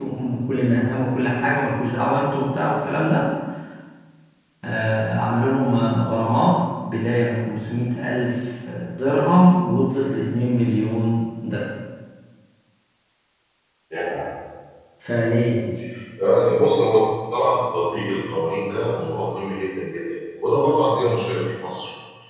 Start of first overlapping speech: none

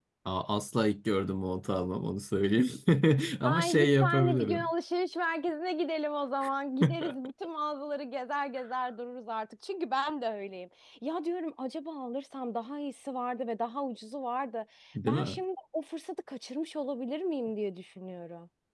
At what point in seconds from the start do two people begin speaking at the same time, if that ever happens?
3.5 s

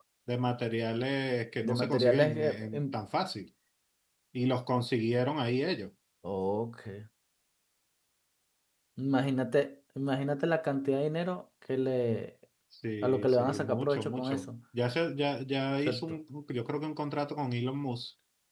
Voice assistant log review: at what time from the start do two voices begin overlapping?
1.6 s

